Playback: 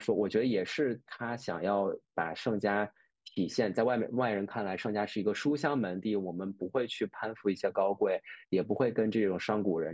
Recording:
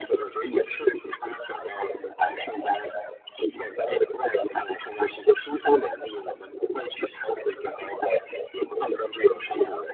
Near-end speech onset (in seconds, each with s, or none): none